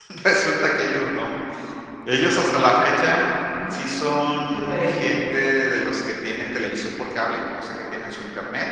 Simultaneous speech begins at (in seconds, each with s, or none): 3.7 s